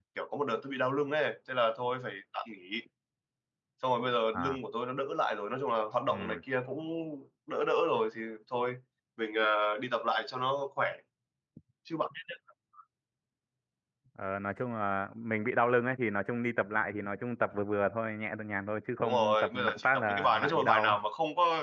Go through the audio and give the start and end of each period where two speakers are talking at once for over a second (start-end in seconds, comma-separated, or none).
19.0-21.0